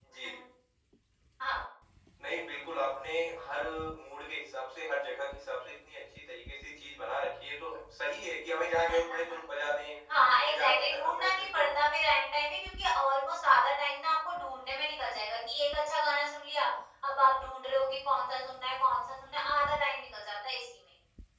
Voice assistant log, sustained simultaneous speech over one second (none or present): present